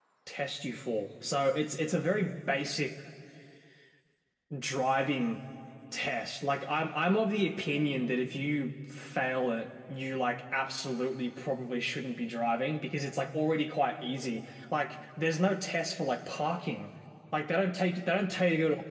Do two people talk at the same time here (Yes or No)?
No